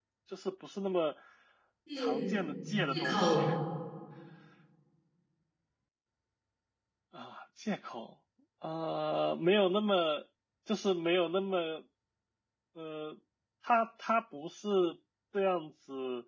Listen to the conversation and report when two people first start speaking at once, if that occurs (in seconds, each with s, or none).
2.0 s